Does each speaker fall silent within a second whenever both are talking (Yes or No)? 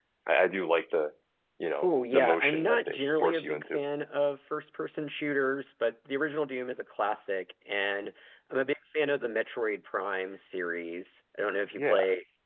No